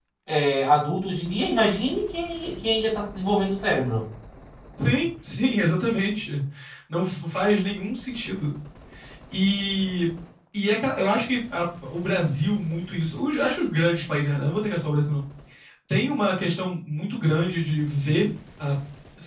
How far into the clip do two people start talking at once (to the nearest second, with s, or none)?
none